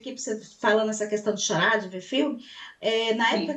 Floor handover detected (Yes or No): No